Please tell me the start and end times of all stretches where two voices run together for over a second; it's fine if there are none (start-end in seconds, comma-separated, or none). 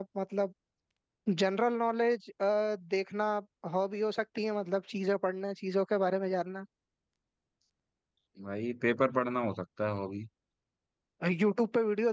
none